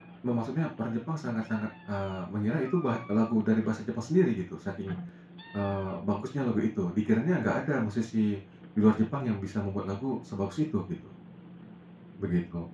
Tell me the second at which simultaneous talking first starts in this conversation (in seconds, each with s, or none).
none